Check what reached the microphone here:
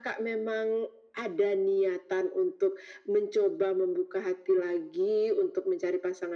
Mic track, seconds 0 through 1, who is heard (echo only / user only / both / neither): echo only